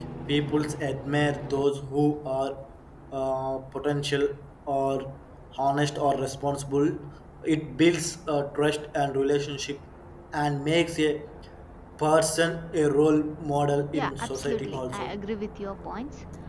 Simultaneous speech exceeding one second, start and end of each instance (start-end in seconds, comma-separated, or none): 13.9-15.2